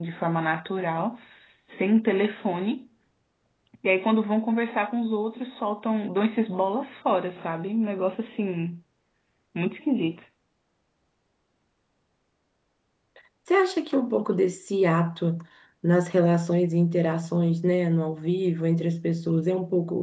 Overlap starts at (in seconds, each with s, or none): none